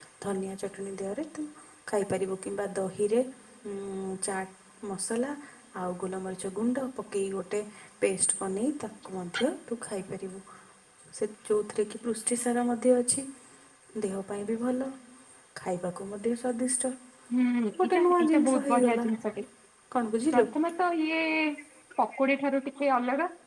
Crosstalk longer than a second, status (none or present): present